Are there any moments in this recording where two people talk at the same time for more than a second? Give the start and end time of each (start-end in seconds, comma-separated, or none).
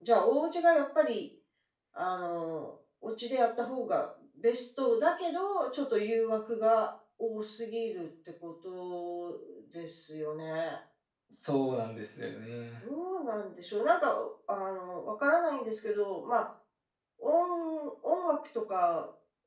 none